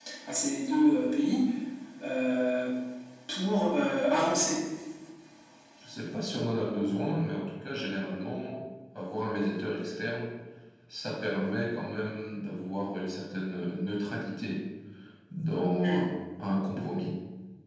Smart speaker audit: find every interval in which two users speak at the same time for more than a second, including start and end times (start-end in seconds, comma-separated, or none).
none